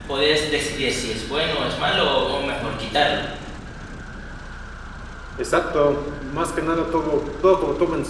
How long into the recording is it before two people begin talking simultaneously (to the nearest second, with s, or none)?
none